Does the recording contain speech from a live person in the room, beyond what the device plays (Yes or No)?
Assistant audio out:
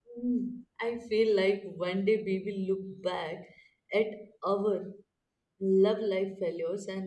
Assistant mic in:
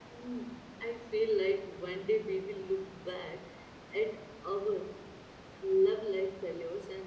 No